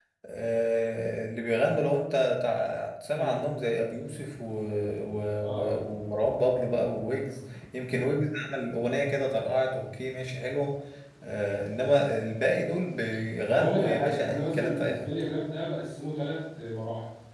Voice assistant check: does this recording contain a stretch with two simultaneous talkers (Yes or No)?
Yes